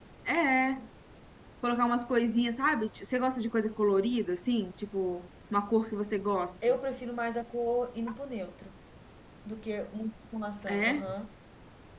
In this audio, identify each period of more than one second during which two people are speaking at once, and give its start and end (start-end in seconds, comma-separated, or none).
none